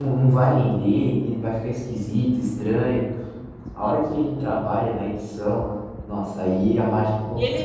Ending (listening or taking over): taking over